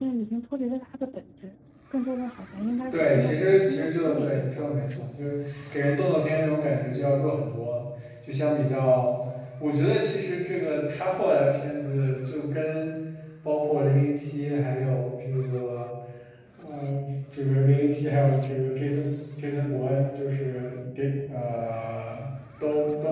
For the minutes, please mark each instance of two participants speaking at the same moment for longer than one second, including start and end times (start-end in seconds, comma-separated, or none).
2.9-5.1